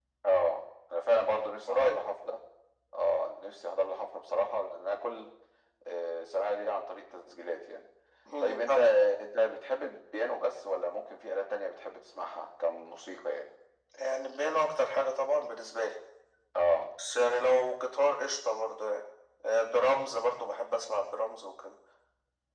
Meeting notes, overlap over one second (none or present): none